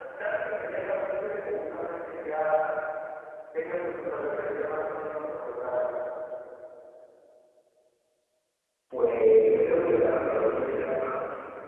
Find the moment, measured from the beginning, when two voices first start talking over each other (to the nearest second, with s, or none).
none